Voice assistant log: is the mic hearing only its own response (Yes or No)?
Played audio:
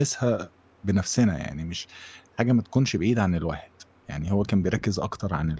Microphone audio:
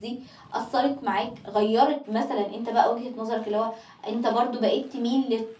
No